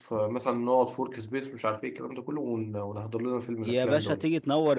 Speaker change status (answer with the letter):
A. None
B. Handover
B